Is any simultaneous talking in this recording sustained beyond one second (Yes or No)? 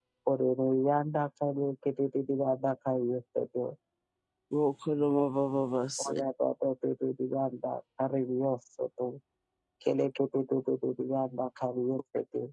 No